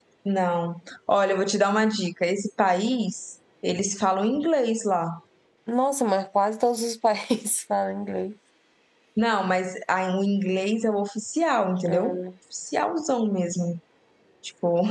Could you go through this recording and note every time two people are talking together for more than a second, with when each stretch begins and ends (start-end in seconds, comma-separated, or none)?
none